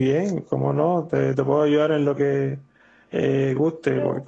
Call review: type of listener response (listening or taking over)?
listening